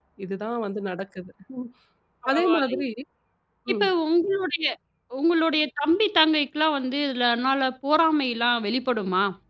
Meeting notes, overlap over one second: none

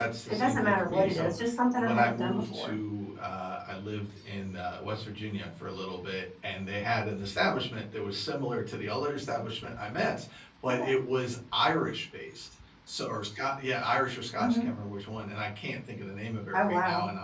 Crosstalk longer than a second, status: present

